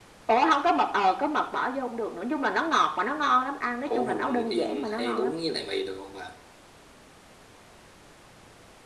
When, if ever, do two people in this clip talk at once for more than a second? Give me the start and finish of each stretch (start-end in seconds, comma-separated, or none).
3.9-5.3